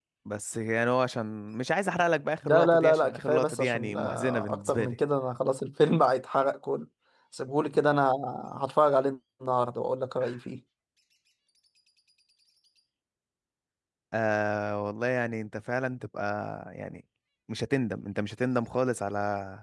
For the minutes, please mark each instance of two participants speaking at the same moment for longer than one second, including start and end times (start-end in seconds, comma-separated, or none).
2.4-5.0